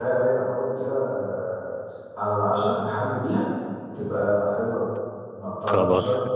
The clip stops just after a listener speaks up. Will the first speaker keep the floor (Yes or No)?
Yes